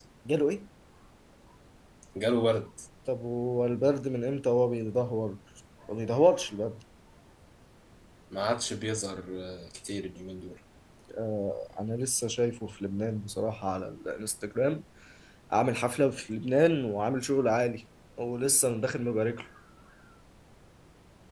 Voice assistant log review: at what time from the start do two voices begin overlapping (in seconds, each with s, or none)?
none